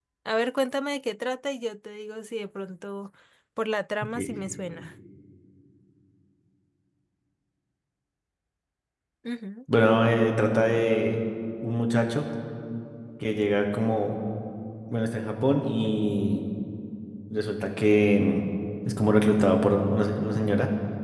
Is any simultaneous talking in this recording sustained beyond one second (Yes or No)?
No